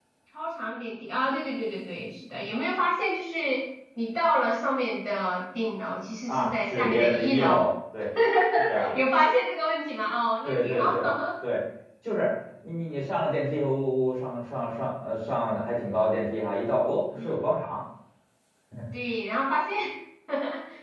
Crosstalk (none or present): present